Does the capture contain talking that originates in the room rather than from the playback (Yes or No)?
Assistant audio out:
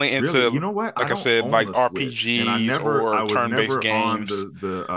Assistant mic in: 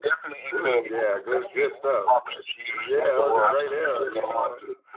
Yes